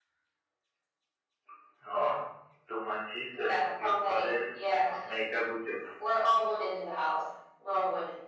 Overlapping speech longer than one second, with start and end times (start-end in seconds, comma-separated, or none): 3.3-4.6